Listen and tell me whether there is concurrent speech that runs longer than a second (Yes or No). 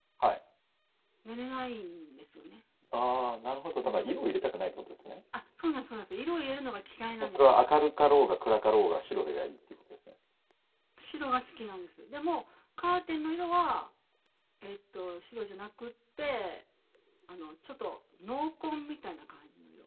No